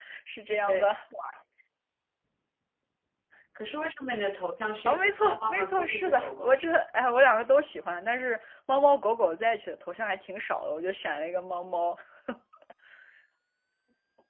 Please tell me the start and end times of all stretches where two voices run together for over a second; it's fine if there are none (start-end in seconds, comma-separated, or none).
4.9-6.6